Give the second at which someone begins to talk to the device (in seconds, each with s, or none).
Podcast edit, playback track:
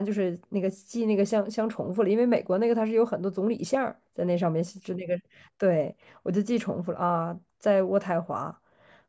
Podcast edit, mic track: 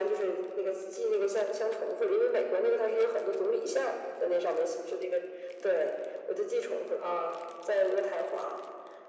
none